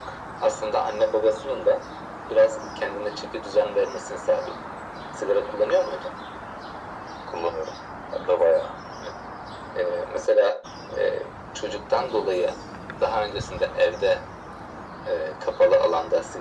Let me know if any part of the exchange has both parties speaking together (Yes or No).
No